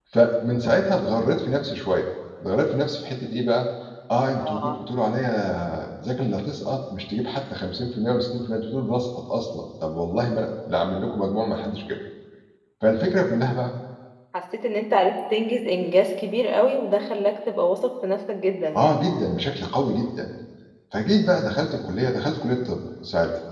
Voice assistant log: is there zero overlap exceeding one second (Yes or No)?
Yes